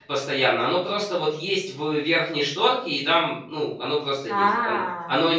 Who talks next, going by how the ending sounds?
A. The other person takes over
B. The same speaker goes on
B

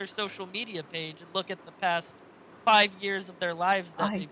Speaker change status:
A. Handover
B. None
B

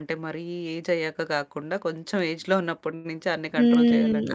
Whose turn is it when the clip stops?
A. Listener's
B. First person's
A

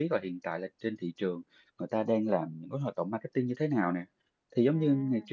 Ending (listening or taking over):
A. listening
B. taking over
A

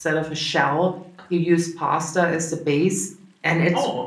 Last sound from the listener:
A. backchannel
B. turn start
A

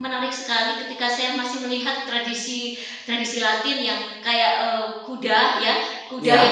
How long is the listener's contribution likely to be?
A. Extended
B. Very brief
B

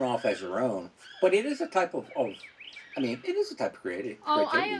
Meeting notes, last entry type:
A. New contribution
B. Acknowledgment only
A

